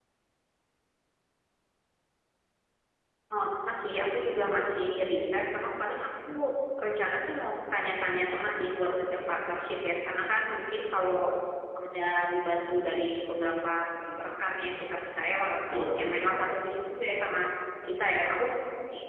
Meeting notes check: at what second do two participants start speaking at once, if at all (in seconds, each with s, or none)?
8.1 s